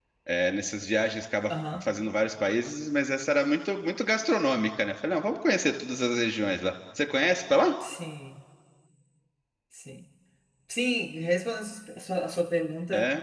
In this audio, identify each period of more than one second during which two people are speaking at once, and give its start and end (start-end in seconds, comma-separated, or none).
none